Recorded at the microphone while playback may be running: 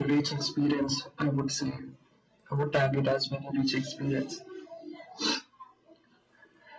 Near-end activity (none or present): none